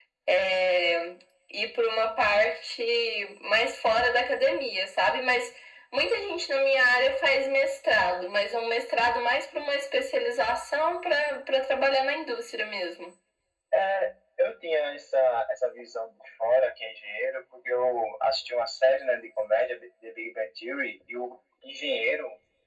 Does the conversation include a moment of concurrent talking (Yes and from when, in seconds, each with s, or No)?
No